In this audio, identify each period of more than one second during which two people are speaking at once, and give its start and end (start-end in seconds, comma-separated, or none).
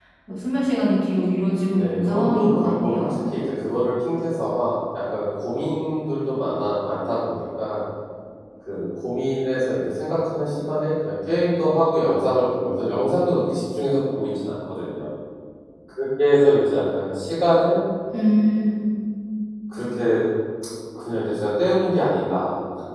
1.8-3.1